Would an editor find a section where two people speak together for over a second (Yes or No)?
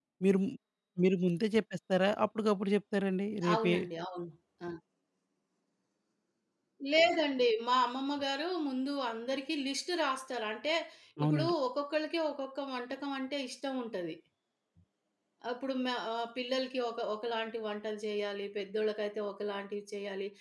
No